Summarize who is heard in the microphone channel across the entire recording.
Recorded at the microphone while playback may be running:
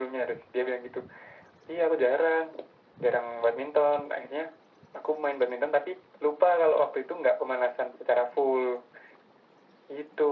echo only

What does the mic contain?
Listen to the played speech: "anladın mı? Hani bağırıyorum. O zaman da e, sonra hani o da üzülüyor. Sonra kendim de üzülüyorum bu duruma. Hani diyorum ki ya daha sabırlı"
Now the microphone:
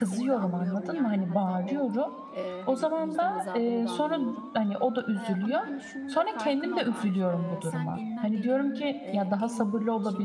both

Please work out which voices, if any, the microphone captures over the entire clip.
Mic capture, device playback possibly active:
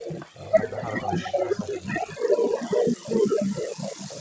both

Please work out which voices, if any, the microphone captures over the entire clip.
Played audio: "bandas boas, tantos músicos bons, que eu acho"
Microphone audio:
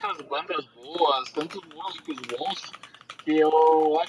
echo only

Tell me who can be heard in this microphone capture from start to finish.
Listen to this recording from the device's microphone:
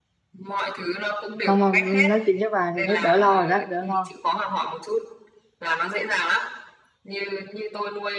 both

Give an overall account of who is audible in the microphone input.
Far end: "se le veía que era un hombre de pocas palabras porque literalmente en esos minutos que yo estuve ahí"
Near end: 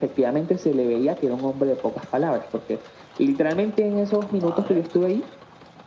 both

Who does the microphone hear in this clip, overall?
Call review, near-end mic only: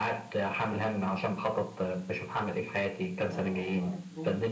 both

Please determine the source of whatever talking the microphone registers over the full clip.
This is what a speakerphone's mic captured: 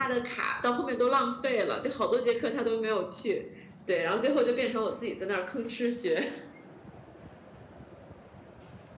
echo only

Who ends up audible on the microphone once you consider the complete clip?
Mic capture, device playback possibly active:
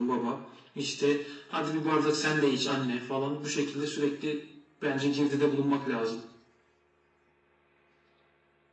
echo only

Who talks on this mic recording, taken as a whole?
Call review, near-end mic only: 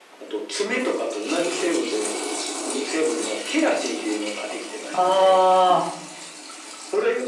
both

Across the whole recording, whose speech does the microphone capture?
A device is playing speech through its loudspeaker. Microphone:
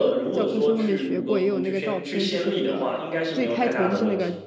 both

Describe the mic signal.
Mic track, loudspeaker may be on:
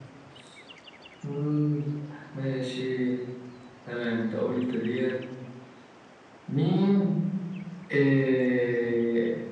echo only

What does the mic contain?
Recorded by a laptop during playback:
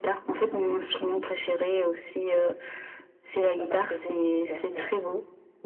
both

